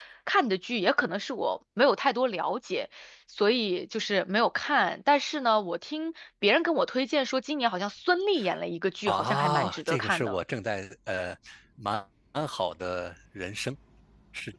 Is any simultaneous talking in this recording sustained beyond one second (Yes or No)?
Yes